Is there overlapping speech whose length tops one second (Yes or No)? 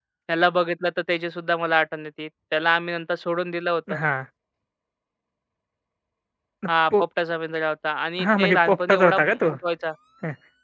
Yes